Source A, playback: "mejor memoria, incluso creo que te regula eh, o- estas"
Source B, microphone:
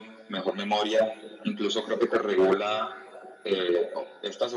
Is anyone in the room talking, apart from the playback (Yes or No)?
No